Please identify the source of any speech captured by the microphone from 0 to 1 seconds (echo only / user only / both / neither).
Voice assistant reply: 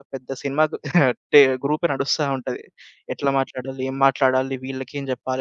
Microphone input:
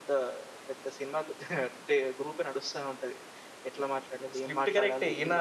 echo only